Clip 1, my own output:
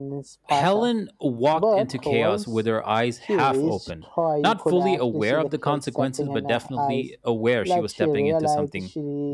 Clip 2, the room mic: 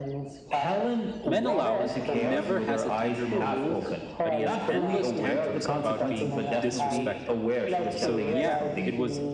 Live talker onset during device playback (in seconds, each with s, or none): 1.2 s